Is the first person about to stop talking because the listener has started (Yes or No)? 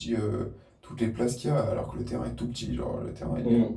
Yes